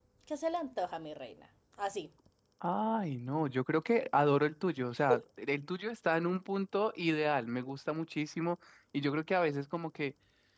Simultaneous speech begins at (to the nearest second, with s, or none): none